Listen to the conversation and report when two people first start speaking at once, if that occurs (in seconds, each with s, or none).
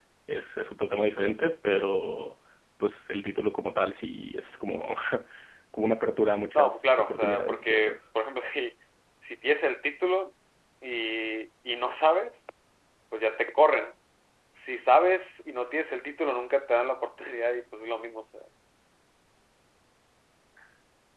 6.5 s